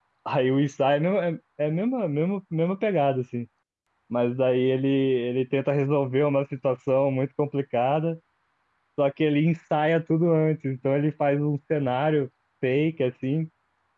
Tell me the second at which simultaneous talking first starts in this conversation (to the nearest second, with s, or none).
none